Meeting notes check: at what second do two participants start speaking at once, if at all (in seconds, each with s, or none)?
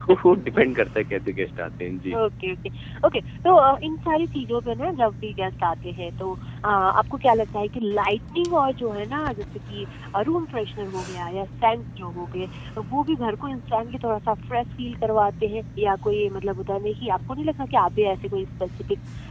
none